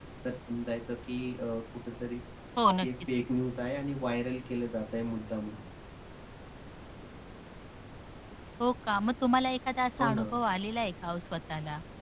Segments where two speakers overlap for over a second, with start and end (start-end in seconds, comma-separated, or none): none